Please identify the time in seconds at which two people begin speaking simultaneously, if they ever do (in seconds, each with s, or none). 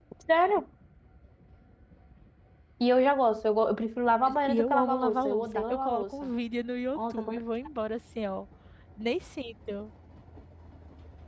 4.5 s